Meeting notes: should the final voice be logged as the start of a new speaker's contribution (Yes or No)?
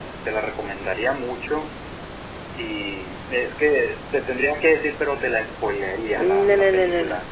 Yes